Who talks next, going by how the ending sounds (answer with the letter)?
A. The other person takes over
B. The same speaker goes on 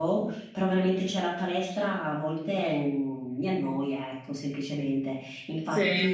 B